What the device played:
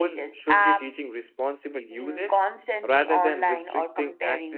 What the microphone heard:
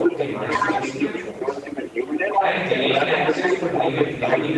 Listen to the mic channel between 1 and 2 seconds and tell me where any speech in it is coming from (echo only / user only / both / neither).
both